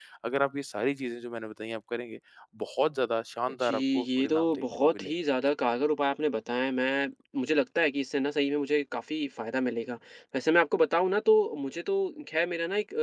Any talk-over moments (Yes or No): Yes